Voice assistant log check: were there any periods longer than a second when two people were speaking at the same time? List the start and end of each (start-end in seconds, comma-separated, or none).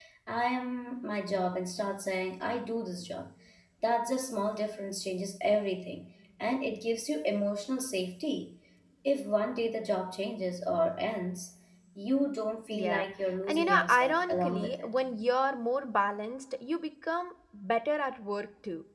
13.4-14.9